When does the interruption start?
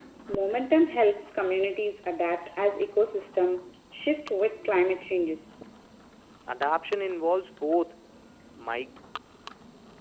none

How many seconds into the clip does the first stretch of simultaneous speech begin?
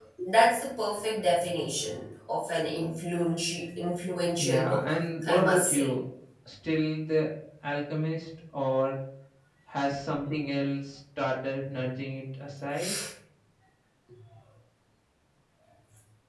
4.4 s

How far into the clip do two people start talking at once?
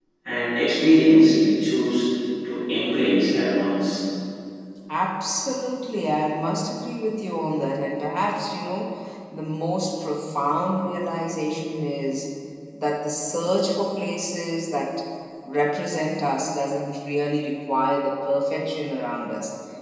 none

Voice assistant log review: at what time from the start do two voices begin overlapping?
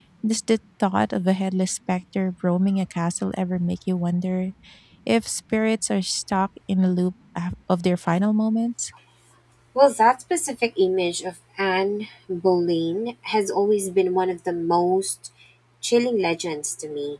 none

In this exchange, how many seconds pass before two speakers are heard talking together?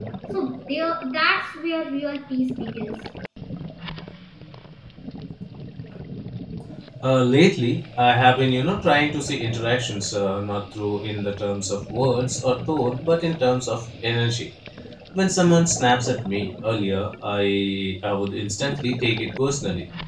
none

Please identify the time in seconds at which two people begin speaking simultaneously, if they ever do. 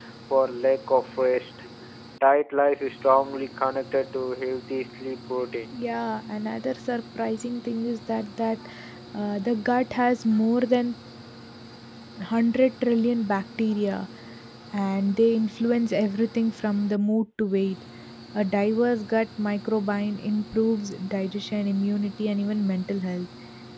none

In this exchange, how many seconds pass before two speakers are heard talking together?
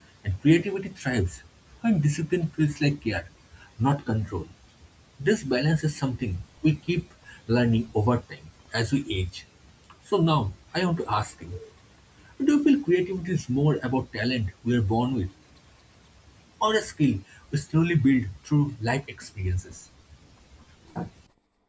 none

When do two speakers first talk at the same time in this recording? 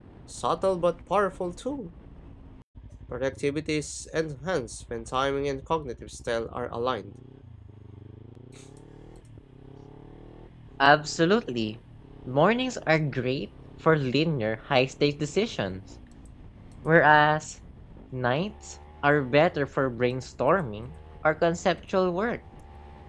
none

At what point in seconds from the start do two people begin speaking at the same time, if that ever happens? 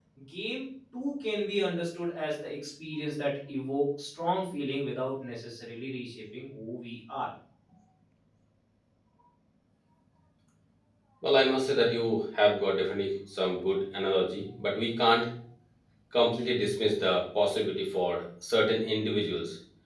none

